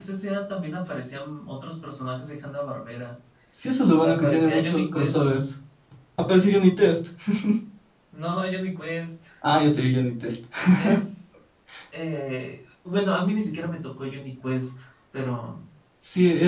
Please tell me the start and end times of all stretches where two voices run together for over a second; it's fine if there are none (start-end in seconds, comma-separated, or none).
4.0-5.3